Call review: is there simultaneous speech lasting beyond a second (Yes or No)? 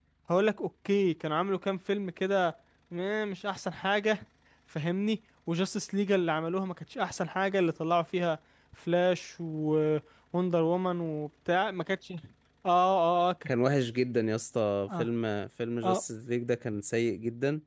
No